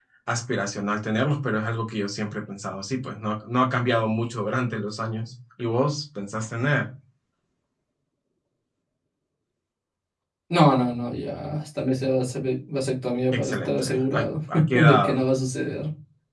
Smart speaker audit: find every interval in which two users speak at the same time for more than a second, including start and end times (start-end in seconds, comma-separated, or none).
13.3-15.2